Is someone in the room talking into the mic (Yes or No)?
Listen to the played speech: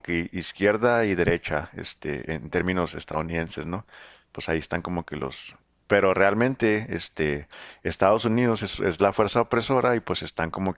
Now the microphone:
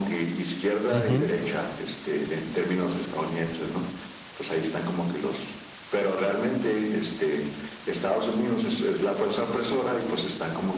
Yes